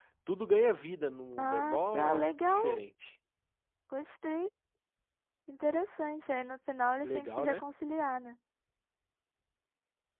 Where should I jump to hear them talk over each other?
1 s

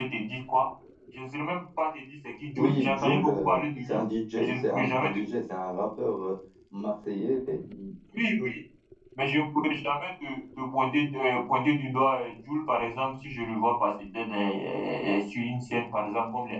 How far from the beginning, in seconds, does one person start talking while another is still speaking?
3 s

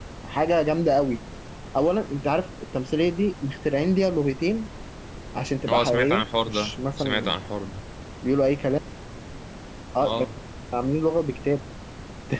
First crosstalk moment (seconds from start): 6 s

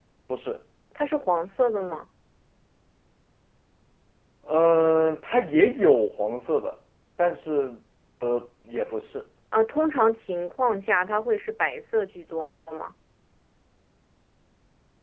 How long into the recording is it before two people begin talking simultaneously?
none

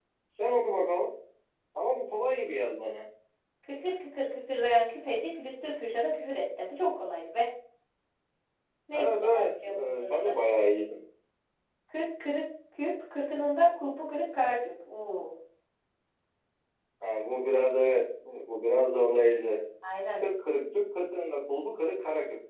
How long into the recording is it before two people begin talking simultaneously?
9 s

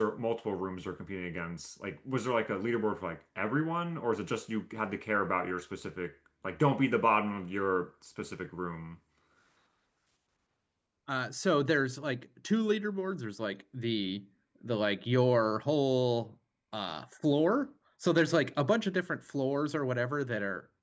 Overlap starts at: none

